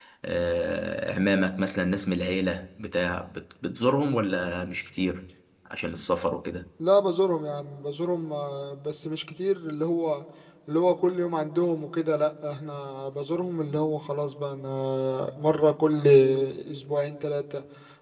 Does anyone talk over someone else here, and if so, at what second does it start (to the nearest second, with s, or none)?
none